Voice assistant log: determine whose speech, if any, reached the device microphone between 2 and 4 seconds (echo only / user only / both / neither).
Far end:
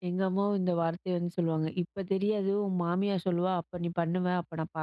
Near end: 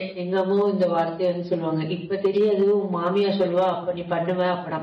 echo only